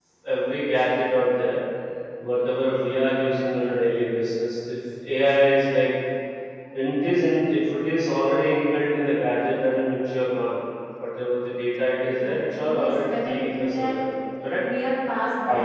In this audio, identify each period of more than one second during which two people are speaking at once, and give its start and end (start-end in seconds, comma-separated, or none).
12.0-14.0